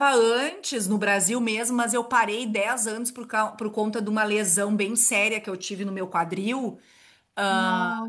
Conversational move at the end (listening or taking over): listening